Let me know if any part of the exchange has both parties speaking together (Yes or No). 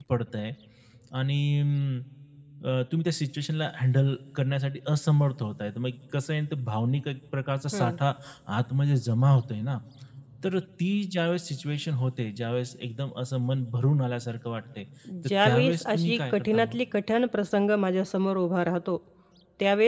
Yes